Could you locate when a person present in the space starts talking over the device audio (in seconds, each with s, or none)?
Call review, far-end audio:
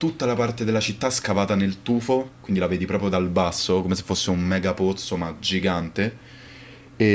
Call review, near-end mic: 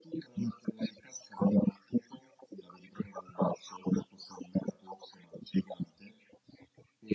none